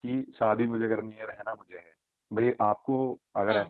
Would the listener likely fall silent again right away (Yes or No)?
Yes